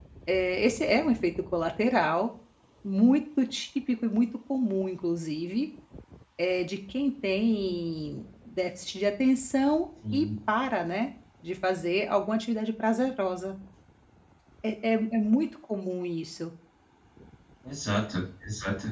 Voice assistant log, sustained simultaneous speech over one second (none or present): none